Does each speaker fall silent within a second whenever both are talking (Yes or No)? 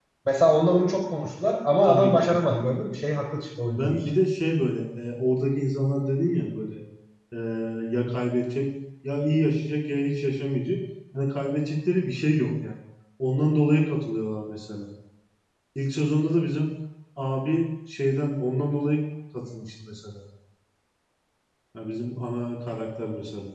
Yes